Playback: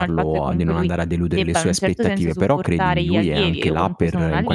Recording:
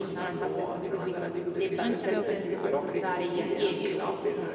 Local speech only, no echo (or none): non ci avevo pensato.